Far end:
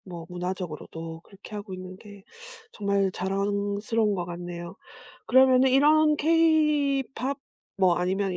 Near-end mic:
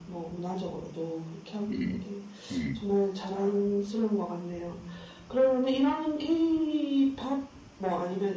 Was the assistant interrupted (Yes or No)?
Yes